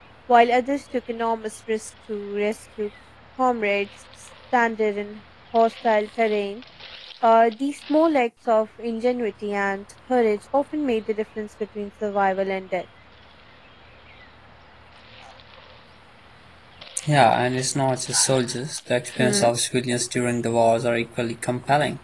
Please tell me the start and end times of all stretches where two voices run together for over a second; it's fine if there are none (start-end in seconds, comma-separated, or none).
none